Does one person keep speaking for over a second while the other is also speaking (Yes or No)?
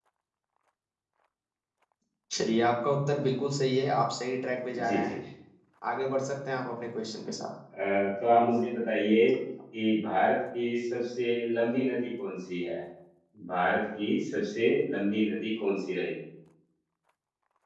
No